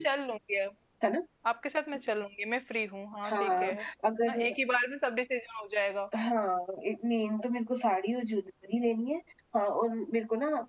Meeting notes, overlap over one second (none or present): none